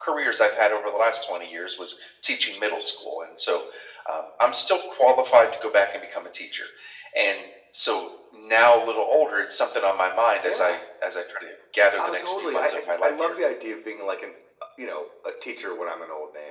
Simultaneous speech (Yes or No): Yes